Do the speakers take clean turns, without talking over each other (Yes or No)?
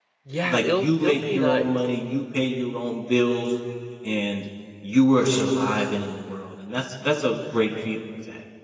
No